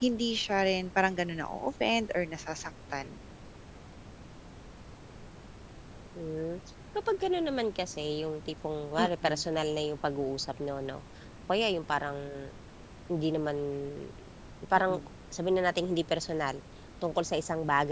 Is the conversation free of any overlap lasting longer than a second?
Yes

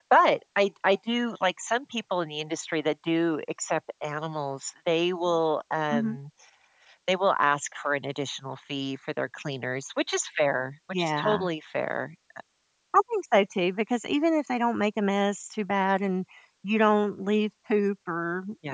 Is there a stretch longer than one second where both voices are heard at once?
No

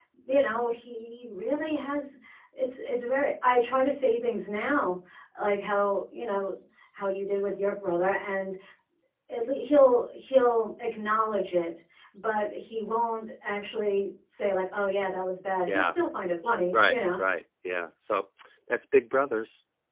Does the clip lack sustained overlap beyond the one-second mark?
Yes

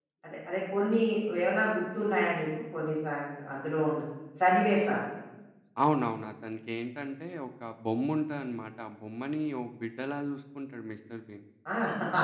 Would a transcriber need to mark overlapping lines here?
No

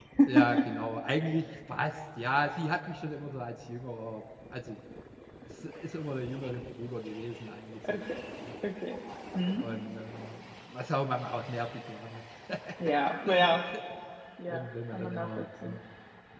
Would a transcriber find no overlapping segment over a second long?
No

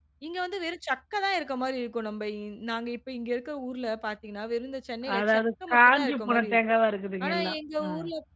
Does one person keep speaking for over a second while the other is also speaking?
Yes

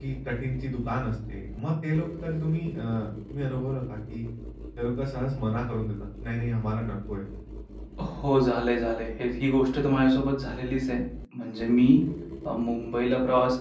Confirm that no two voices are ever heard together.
Yes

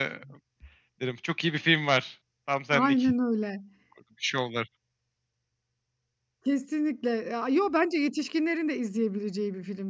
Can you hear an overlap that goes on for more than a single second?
No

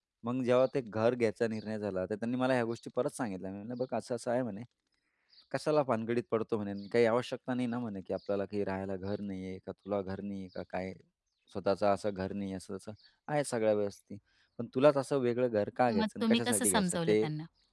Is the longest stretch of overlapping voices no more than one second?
No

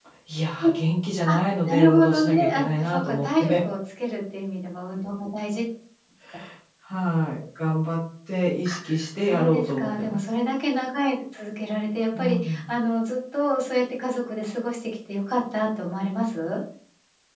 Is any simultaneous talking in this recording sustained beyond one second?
Yes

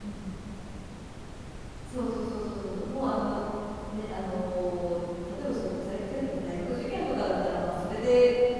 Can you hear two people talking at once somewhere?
No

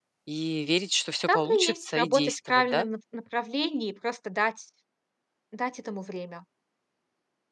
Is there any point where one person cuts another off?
Yes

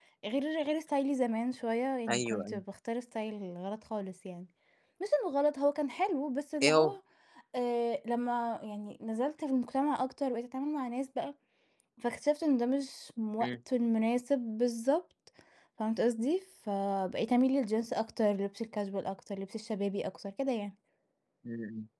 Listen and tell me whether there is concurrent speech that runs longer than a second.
No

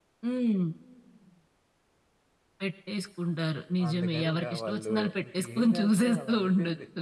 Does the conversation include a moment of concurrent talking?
Yes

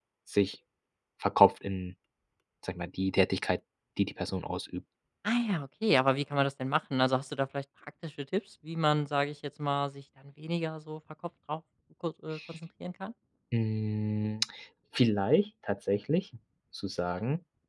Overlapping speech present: No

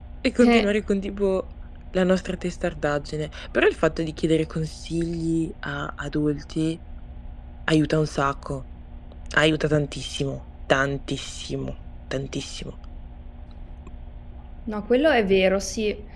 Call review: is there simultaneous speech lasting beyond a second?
No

